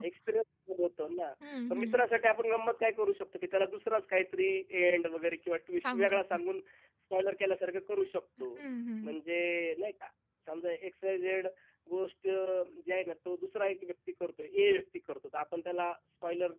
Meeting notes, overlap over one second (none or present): none